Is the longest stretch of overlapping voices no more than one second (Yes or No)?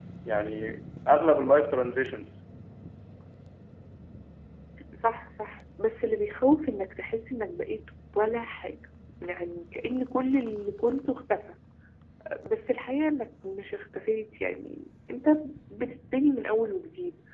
Yes